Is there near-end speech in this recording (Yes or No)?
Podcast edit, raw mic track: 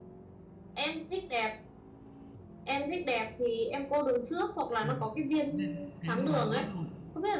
Yes